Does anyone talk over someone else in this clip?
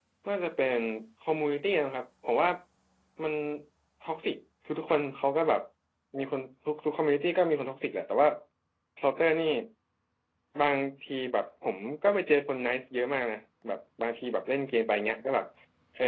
No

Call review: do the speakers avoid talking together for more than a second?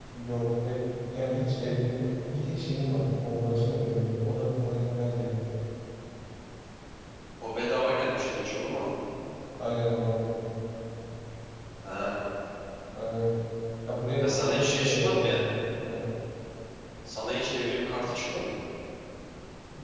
No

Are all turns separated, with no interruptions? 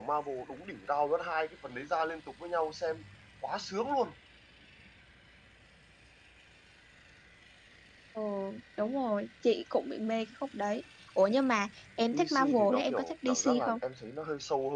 No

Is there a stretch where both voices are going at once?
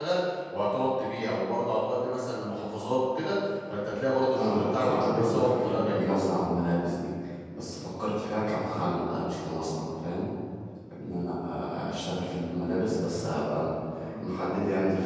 Yes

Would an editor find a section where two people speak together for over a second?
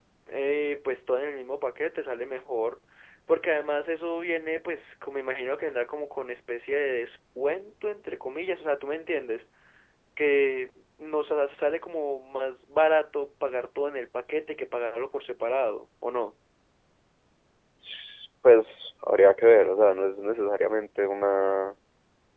No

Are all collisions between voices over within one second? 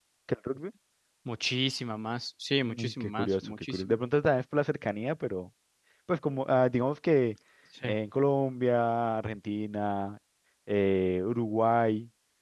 No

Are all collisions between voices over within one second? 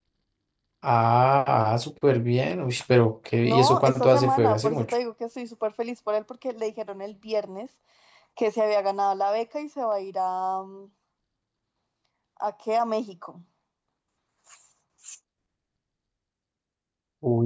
No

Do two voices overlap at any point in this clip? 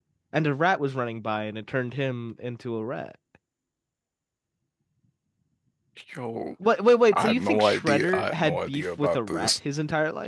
Yes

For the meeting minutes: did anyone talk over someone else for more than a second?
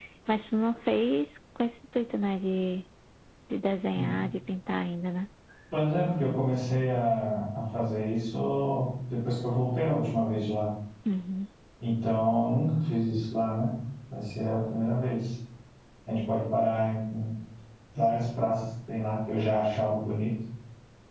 No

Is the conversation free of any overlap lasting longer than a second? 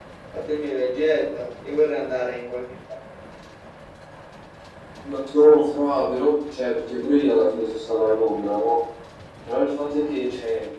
Yes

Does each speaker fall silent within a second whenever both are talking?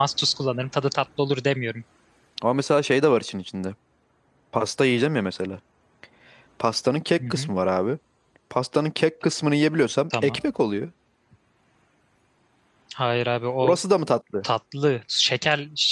Yes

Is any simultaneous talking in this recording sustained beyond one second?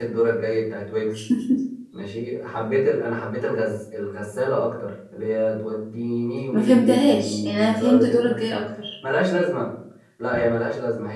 Yes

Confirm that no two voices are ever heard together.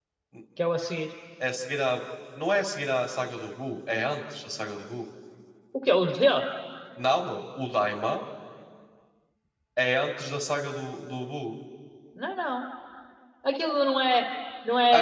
Yes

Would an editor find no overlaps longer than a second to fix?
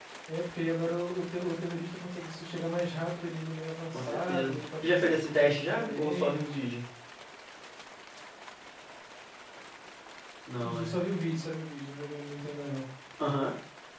No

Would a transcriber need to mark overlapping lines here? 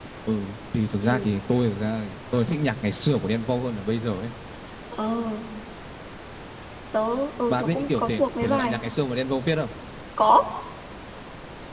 Yes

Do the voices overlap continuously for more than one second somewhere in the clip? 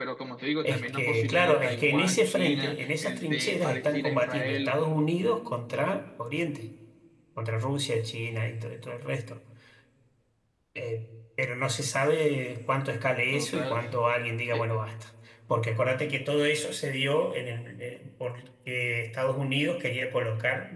Yes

